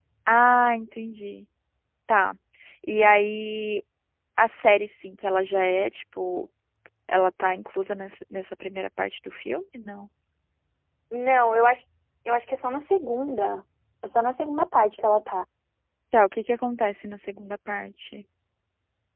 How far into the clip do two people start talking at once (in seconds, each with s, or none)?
none